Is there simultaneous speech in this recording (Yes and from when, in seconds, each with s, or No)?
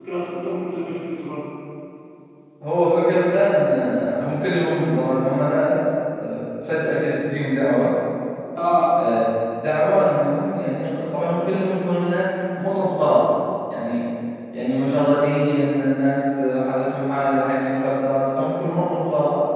No